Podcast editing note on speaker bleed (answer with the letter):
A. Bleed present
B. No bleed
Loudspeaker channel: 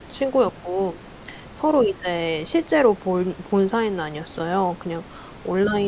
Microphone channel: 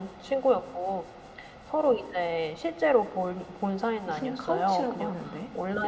A